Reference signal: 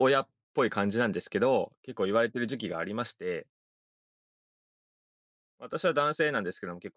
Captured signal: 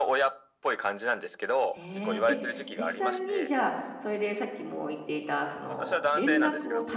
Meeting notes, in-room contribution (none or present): present